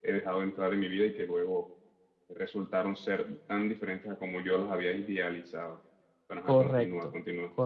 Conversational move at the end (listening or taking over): taking over